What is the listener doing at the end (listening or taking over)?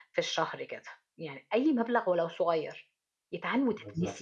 listening